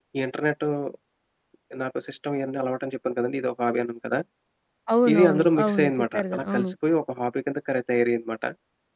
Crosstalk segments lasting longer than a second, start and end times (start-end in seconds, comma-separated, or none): 5.1-6.7